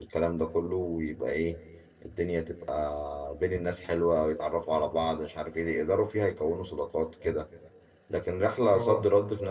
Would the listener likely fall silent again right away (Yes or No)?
Yes